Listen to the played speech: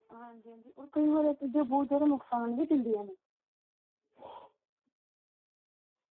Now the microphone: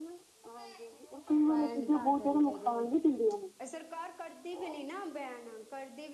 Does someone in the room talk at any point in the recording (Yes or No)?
Yes